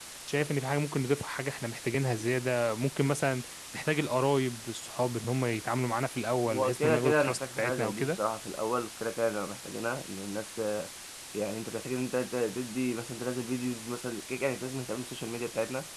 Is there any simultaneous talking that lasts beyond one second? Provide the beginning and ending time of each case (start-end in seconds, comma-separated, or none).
6.5-8.1